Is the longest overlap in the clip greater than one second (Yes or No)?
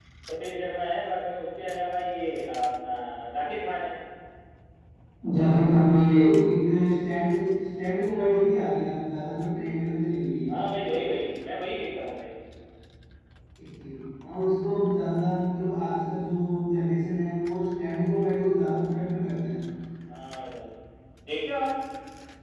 No